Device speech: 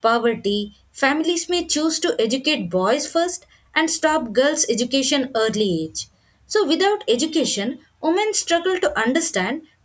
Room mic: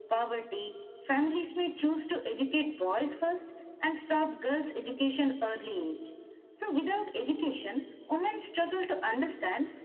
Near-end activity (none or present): none